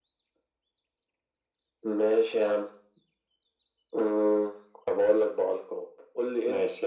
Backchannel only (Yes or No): Yes